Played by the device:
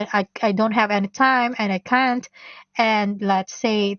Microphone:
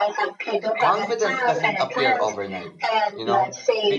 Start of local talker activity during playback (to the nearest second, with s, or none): 1 s